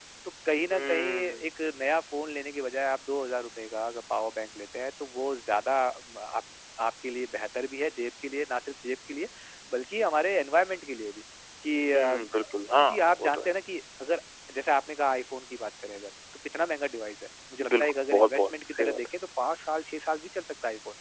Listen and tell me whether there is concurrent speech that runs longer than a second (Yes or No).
Yes